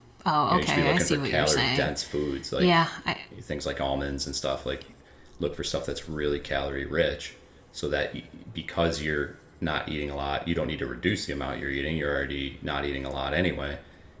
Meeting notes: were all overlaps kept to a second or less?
No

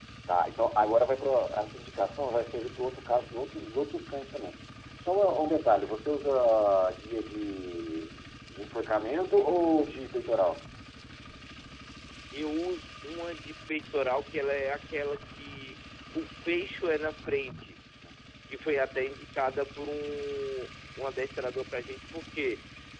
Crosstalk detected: No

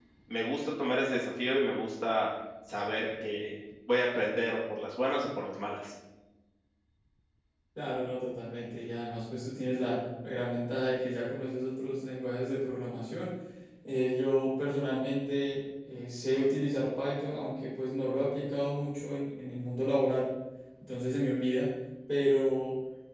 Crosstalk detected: No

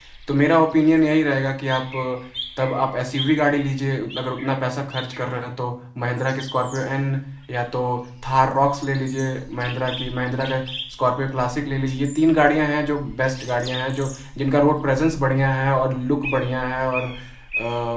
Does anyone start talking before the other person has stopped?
No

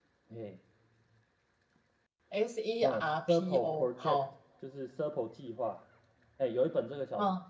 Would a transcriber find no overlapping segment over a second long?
No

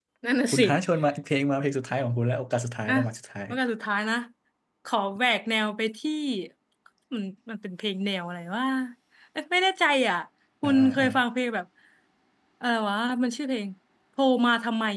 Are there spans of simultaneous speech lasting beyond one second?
No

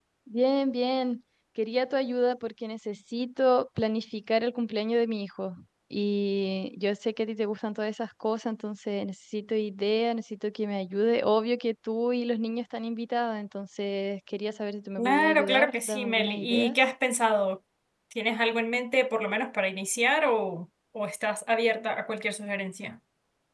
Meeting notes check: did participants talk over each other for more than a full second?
Yes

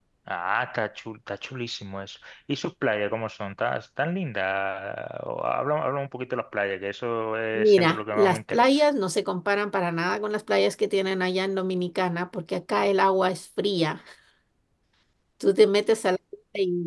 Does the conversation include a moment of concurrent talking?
Yes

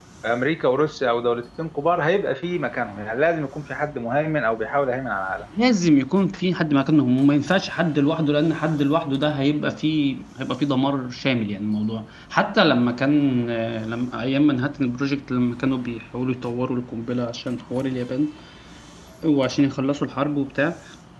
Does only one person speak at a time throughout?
Yes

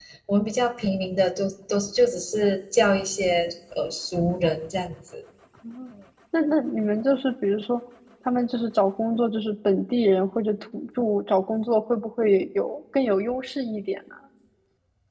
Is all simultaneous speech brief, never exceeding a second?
Yes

